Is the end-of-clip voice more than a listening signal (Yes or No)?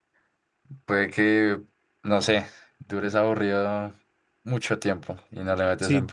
Yes